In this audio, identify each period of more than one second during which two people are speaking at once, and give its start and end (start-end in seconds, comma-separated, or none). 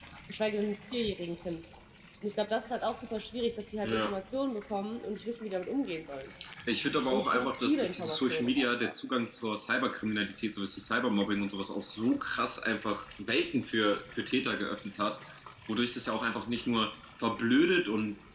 7.1-8.9